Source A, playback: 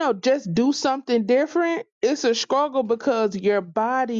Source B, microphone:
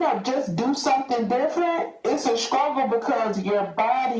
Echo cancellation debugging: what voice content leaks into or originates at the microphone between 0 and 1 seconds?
echo only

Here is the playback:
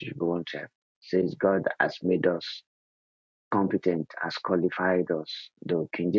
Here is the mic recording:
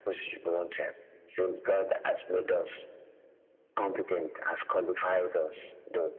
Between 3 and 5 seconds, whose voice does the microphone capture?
echo only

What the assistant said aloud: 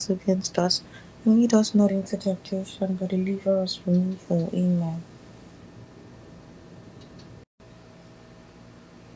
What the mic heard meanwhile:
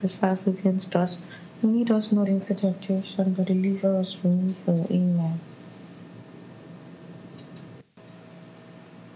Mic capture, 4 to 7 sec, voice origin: echo only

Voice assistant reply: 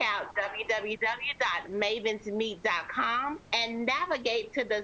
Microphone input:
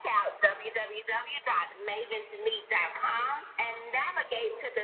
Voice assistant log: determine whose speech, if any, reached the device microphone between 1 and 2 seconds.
echo only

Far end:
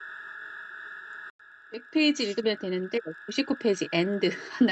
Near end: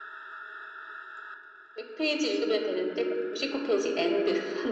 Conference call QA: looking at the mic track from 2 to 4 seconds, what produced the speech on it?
echo only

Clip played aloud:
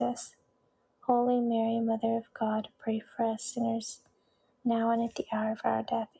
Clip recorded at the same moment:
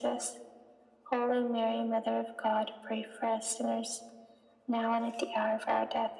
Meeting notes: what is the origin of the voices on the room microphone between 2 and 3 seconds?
echo only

